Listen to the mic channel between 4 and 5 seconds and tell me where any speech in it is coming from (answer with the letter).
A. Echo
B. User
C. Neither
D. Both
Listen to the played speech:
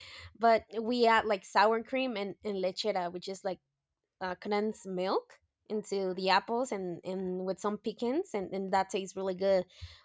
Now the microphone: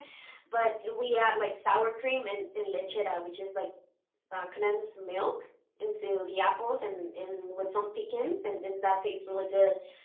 A